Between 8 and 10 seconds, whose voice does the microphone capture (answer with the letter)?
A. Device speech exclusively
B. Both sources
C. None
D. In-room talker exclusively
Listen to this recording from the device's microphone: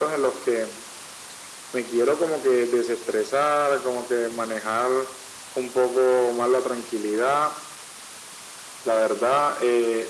A